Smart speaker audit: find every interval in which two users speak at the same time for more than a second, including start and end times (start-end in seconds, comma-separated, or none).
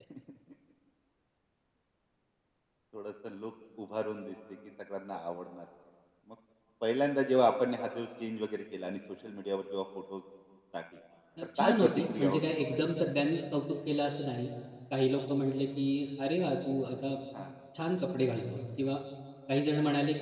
11.6-12.8